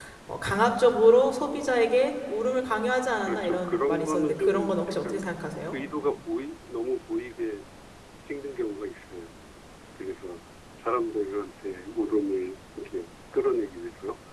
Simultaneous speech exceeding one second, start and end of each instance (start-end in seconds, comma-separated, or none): 3.3-5.3